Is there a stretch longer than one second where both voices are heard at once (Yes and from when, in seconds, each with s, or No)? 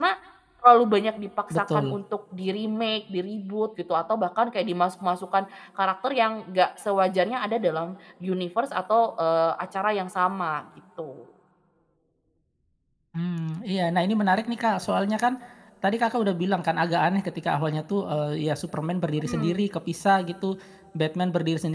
No